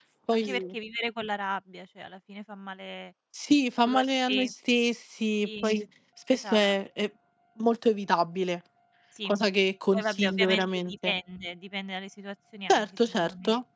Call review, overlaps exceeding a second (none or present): present